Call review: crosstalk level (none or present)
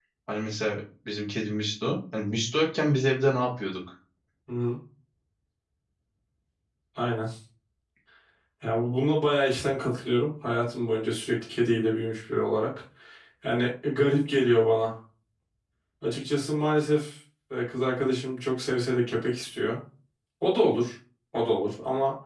none